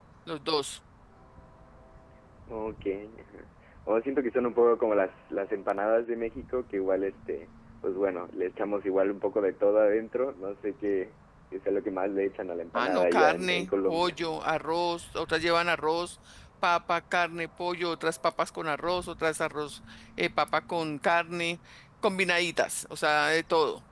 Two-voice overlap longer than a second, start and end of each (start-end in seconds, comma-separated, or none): 12.7-14.2